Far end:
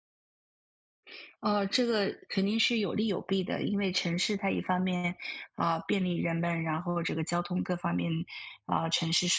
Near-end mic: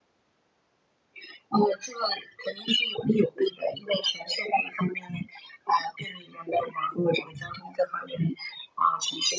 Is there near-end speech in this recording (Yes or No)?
No